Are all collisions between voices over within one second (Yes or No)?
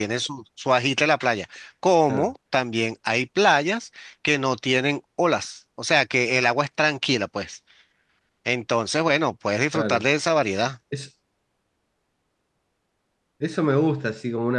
Yes